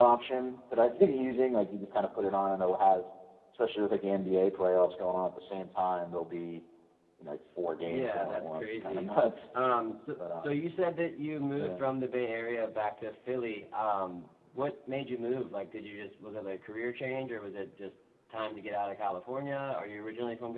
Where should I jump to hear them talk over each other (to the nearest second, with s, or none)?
8 s